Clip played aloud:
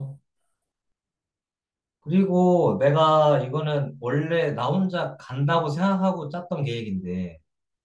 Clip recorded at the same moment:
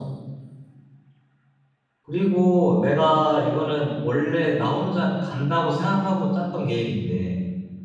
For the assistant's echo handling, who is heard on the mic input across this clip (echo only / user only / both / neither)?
echo only